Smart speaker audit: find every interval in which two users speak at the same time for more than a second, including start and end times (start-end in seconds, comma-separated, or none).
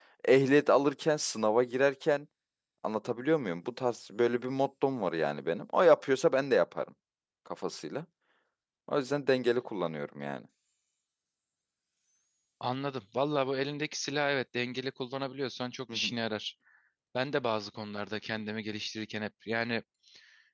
none